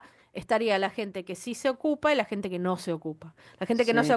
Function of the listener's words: listening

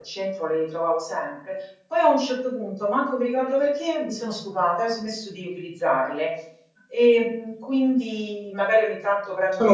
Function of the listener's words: listening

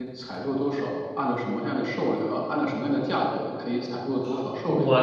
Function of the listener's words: taking over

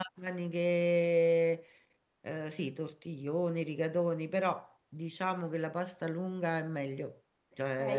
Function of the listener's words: taking over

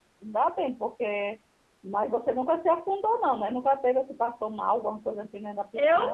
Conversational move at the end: taking over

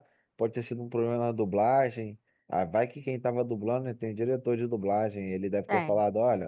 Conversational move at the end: listening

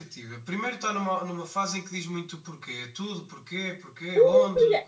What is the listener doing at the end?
taking over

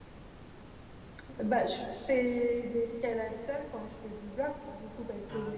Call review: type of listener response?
listening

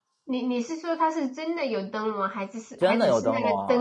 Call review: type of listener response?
taking over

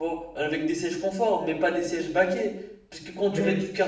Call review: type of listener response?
listening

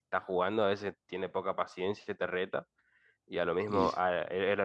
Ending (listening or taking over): listening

